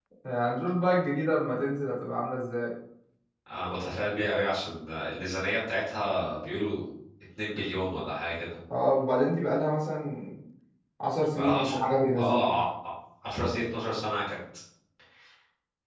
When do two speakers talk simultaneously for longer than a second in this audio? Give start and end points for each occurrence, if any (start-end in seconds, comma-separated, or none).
11.4-12.6